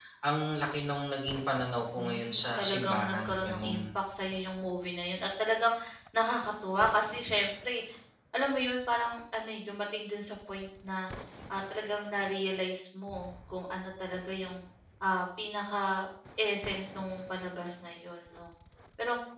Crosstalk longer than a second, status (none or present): present